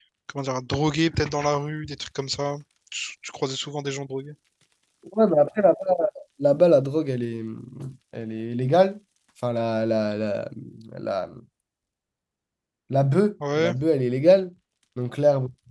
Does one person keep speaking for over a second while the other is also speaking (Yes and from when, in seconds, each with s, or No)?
No